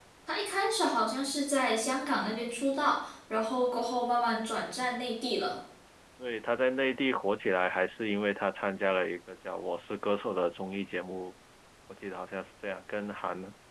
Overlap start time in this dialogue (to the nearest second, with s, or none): none